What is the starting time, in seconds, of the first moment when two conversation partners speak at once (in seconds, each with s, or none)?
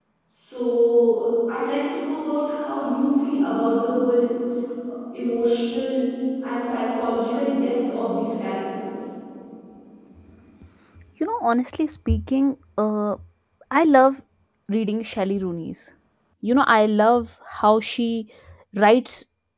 none